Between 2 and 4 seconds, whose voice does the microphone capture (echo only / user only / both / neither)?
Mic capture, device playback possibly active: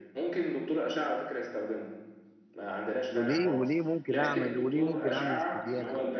both